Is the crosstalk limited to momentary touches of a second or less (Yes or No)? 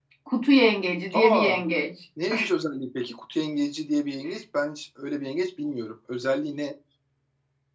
Yes